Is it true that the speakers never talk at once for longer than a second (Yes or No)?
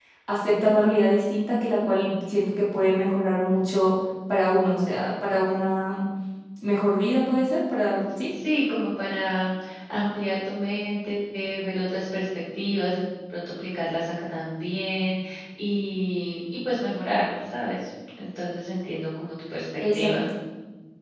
Yes